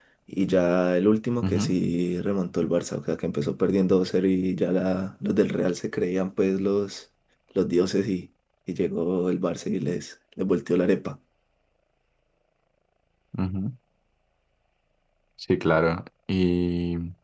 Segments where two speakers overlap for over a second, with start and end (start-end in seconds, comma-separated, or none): none